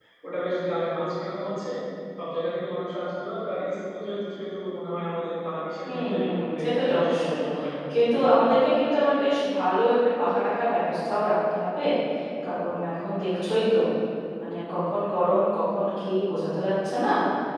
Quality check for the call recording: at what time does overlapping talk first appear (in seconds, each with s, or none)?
5.8 s